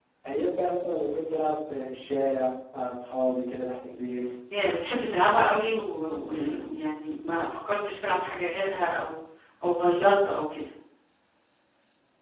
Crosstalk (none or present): none